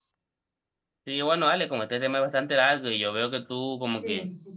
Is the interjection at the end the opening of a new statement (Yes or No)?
No